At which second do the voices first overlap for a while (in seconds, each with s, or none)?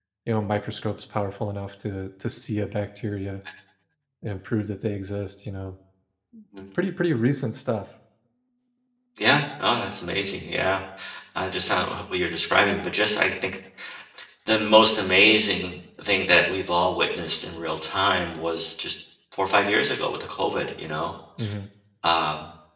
none